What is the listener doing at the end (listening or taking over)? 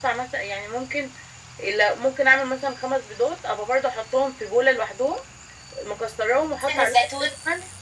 listening